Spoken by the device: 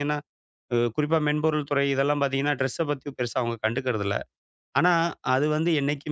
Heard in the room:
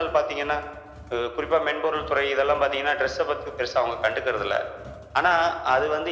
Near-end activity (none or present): none